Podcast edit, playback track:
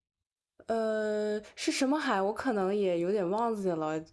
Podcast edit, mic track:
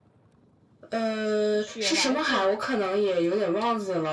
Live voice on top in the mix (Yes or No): No